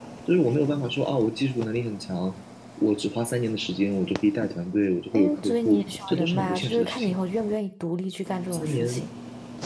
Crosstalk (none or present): present